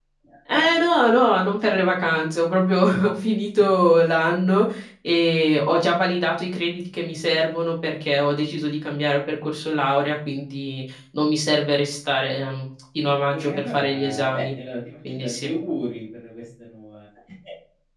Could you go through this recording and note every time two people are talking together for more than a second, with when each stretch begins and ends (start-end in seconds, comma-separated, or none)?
13.3-14.5